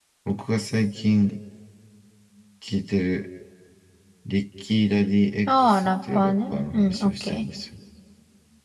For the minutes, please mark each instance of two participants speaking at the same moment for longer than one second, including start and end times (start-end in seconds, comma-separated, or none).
5.5-7.5